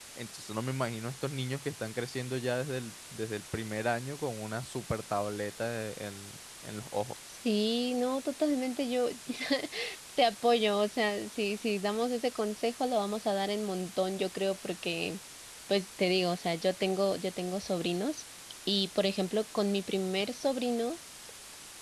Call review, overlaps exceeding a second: none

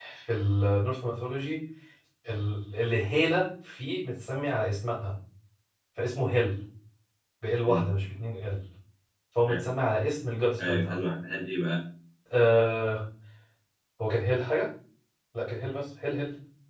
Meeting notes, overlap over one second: none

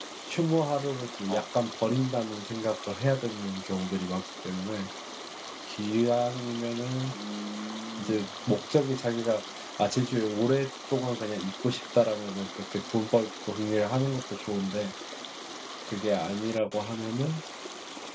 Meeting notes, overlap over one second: none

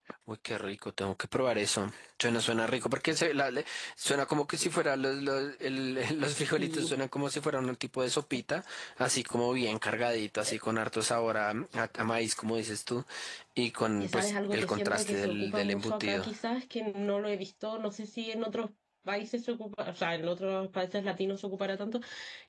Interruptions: present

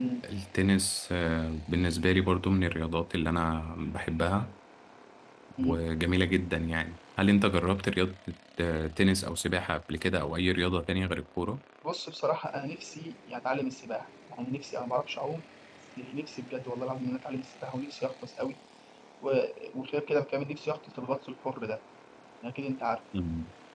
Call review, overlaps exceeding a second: none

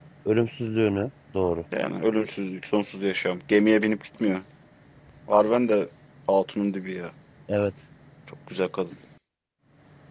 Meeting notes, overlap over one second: none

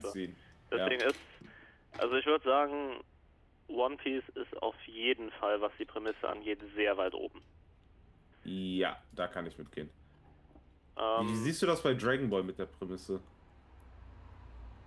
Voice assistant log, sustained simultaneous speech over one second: none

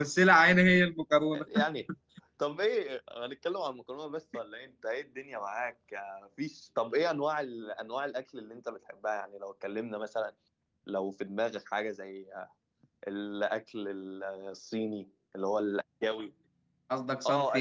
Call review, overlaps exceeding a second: none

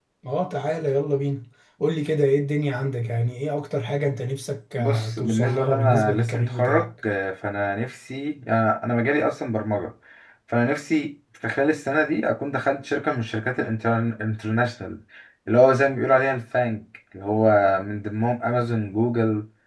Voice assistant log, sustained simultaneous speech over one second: present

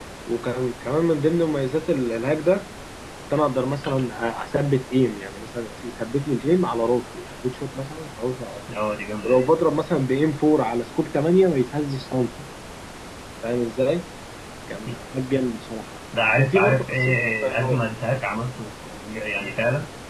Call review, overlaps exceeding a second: present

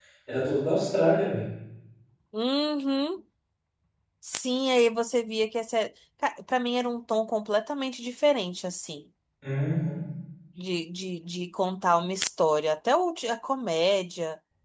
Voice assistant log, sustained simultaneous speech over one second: none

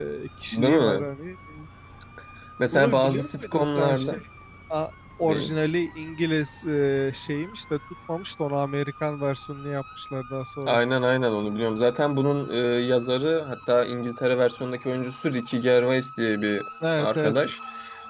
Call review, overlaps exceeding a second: present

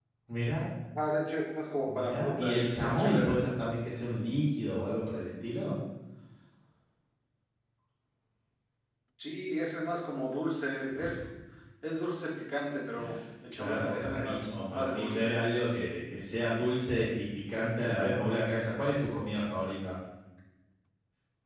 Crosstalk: present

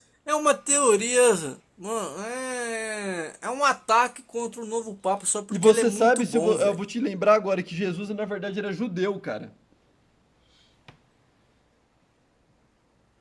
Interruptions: present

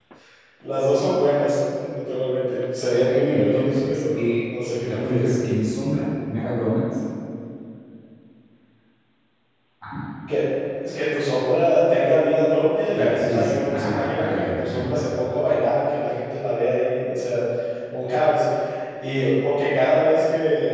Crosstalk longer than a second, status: present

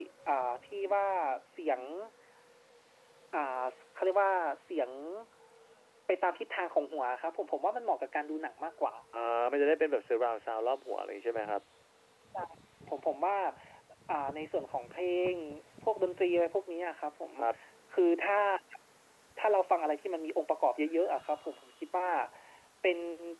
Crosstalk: none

